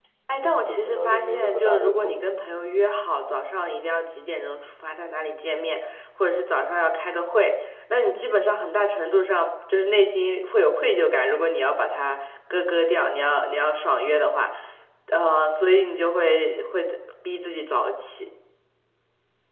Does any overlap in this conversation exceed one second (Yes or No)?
Yes